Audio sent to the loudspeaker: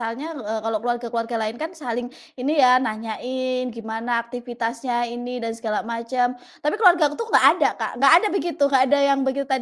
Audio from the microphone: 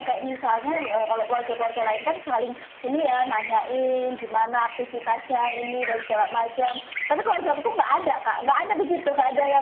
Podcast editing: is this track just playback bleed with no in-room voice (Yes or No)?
Yes